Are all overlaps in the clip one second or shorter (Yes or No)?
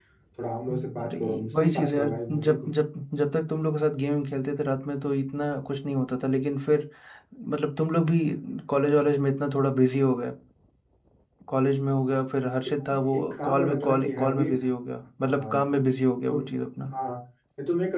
No